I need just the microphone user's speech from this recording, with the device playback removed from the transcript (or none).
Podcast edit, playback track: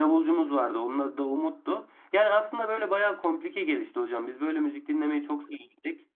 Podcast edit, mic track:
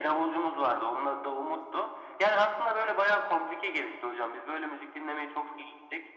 none